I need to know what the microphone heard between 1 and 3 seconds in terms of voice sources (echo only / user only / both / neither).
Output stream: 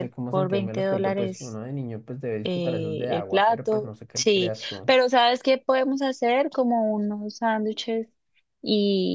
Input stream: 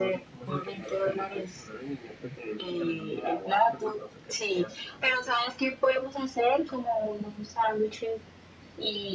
echo only